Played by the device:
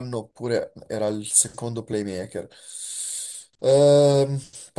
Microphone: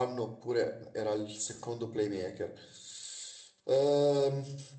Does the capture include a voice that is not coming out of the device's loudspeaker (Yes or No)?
No